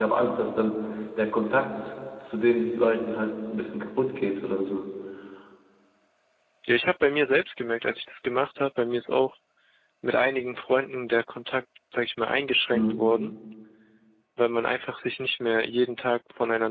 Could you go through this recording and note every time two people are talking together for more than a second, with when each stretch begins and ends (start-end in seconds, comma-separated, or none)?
none